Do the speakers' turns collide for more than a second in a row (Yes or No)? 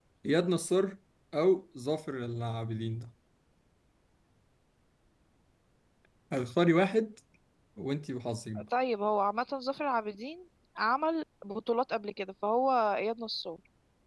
No